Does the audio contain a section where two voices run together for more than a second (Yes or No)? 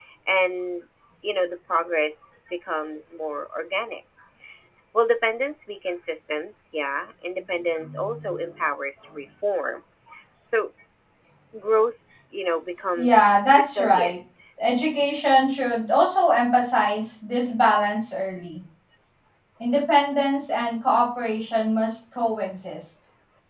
Yes